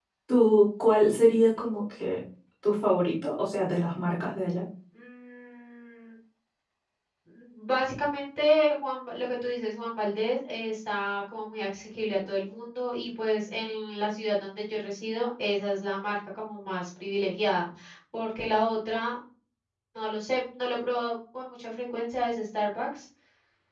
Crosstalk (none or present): none